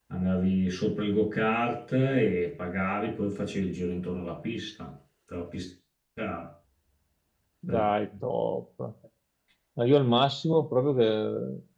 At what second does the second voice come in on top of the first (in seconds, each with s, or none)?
none